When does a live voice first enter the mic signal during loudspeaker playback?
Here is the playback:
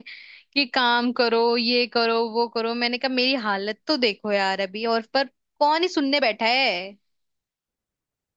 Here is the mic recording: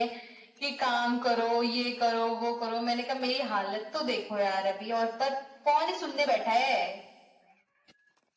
none

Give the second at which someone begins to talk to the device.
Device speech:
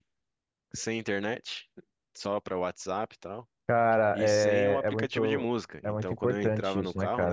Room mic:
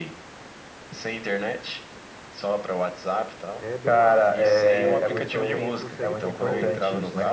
4 s

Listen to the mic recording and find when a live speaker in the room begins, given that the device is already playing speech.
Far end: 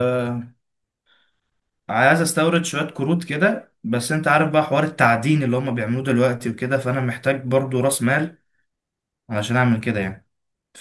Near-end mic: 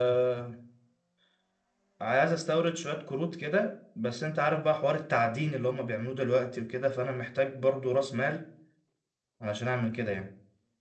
none

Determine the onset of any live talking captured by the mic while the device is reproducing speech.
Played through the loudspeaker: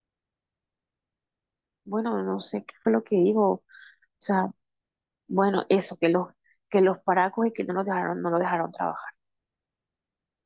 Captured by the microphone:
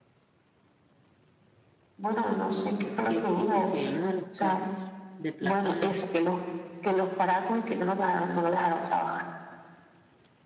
3 s

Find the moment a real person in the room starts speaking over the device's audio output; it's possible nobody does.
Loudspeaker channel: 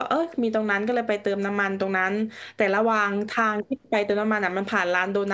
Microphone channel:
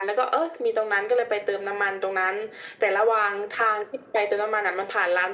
none

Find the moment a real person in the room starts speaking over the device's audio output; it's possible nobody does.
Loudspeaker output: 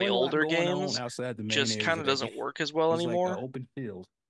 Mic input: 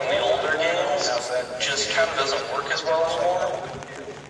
none

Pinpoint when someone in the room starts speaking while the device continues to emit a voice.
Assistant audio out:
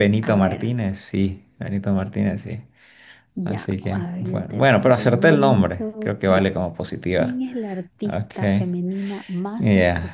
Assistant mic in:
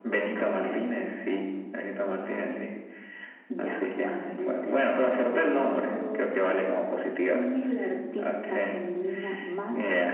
none

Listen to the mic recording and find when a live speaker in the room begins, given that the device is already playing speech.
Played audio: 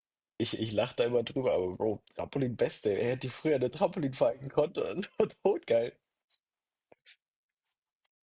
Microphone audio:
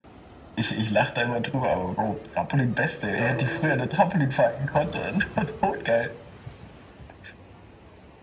3 s

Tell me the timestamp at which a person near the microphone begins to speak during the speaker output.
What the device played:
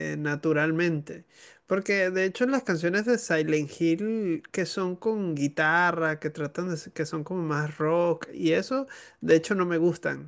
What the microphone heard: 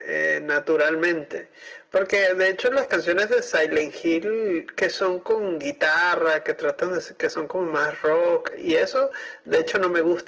none

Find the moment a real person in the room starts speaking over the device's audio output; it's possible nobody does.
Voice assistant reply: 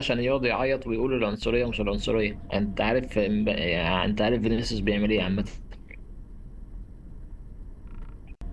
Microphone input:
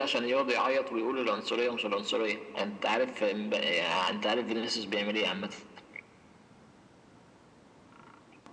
none

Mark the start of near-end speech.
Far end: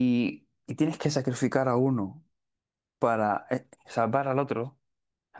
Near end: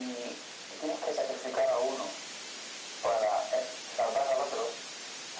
none

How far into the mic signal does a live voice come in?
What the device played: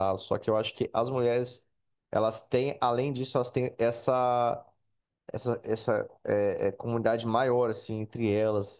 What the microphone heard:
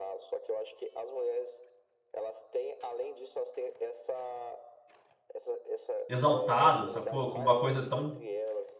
6 s

